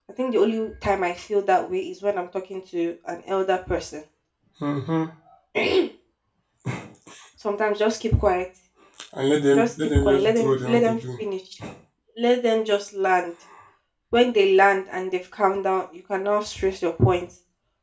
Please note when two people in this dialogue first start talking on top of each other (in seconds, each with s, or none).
9.6 s